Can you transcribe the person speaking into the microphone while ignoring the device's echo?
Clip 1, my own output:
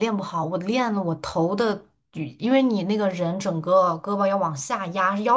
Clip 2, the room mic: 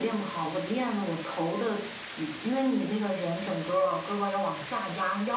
none

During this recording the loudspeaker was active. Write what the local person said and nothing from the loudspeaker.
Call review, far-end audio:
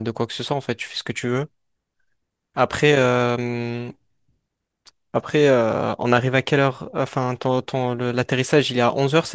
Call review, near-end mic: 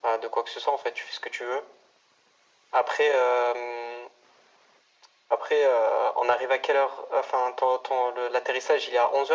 none

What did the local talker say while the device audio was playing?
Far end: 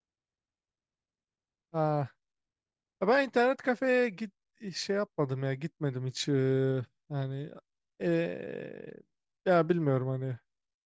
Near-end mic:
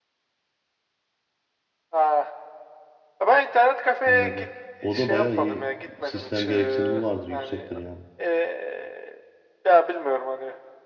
Anladım. O da bayağı iyi sistem gereksinimi vardır, yüksektir yani.

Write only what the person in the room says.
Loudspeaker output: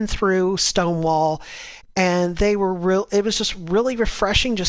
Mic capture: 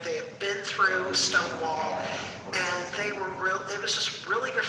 to at least, you know, have, have a support system.

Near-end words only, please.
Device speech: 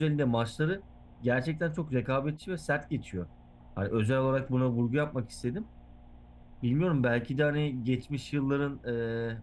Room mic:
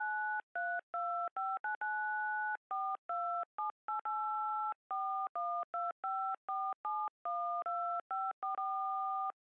none

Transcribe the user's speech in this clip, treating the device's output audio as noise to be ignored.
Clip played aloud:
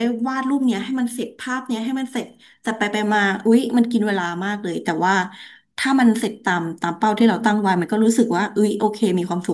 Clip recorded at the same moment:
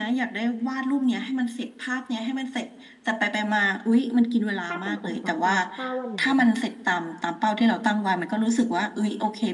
ถ้าเป็นของปากกาถ้าวันไหนแบบ

